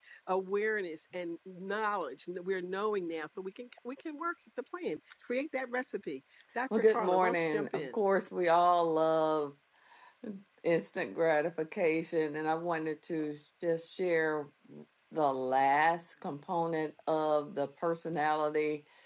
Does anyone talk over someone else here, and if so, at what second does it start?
7 s

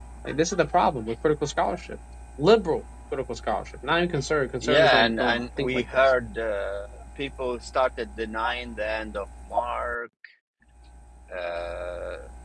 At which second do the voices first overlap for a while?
5 s

